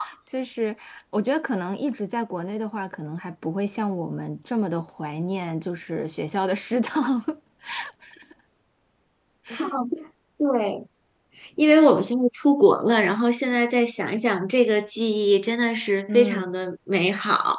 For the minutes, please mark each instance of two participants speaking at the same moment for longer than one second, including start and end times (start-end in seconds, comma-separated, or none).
none